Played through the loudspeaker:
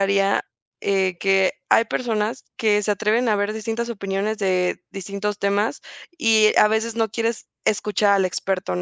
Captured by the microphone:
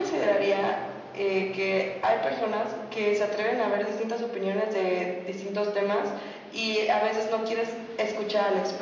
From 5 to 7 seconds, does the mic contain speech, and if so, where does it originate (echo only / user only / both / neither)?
echo only